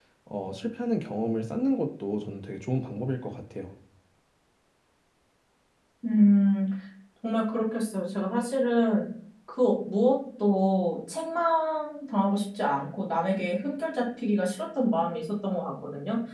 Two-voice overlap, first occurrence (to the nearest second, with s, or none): none